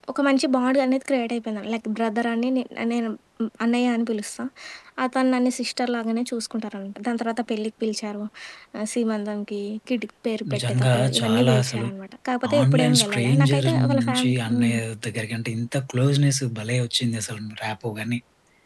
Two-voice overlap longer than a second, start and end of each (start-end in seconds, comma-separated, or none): 10.5-11.9, 12.6-14.8